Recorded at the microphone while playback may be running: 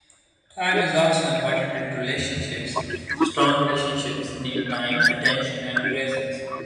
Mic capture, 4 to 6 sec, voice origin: both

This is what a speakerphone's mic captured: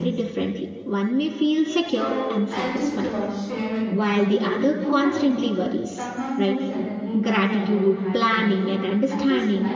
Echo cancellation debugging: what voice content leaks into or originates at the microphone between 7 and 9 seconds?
both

